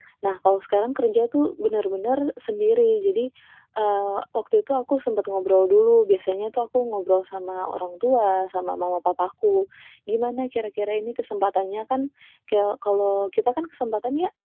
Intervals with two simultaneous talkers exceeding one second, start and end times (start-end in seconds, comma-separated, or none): none